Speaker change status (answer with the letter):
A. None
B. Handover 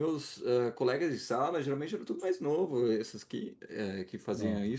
A